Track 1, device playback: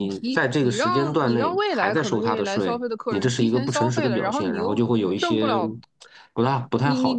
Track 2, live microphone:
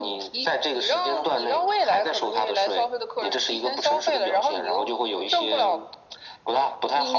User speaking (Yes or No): No